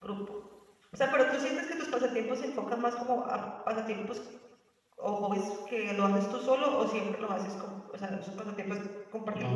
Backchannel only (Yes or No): No